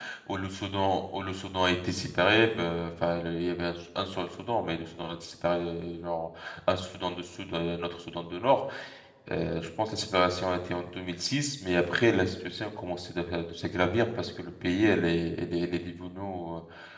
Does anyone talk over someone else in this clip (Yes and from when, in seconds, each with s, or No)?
No